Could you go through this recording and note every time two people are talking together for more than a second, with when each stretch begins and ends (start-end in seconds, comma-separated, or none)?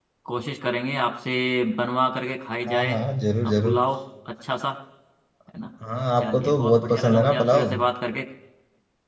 6.2-7.7